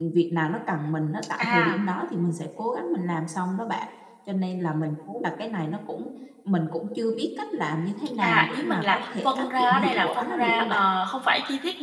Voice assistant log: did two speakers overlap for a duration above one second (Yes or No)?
Yes